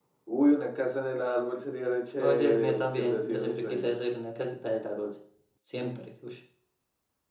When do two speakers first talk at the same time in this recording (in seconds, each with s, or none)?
2.2 s